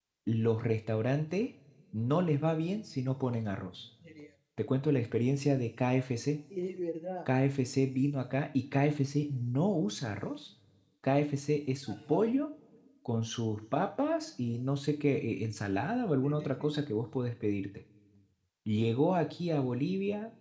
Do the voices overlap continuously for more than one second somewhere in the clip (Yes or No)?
No